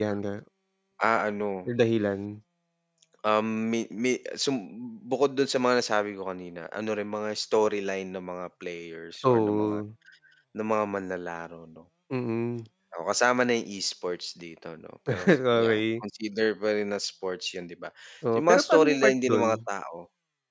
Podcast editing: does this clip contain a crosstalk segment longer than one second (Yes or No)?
Yes